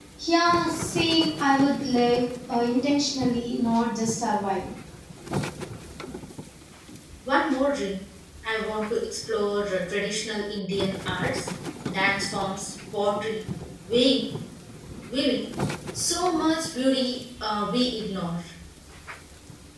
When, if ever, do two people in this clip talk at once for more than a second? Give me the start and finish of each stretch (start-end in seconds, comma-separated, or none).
none